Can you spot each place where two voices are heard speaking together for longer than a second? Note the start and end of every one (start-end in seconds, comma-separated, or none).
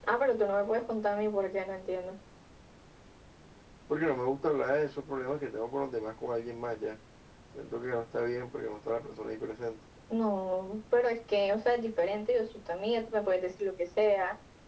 none